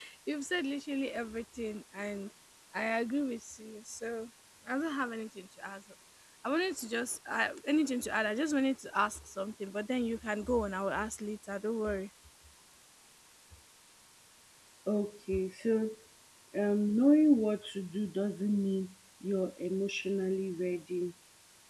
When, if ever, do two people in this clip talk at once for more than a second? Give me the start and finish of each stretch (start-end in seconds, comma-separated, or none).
none